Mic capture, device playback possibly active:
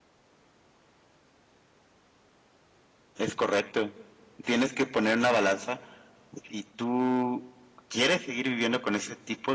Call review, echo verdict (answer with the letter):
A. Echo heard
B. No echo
B